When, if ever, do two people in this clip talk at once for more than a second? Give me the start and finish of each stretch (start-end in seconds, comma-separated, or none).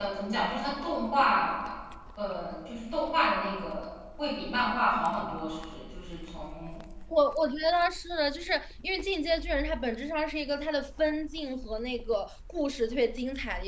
none